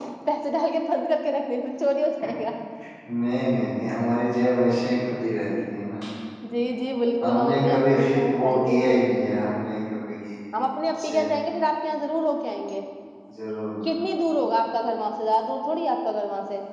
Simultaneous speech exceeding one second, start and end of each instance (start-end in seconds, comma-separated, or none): 7.4-9.0